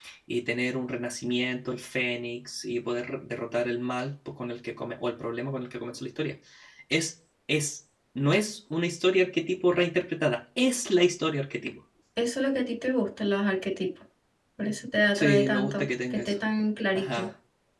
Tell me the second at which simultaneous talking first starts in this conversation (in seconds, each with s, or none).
15.1 s